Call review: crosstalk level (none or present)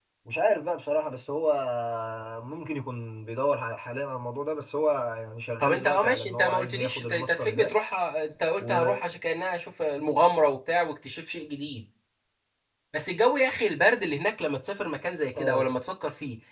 present